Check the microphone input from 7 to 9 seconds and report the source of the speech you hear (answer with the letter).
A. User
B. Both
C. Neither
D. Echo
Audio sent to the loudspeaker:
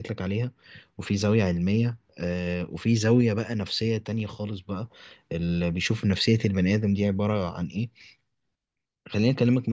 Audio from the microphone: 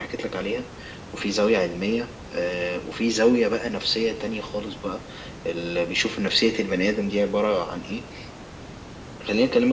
D